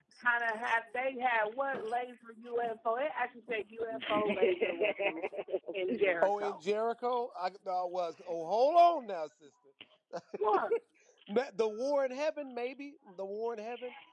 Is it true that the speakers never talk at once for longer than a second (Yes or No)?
No